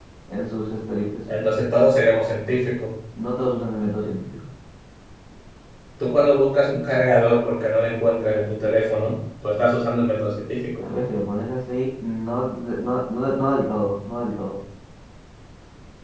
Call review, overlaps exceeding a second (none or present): none